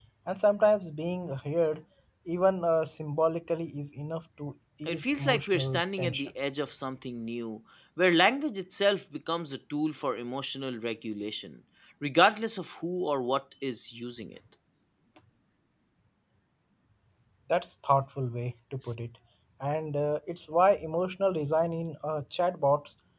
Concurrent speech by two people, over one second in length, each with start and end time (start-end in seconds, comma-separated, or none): 4.9-6.3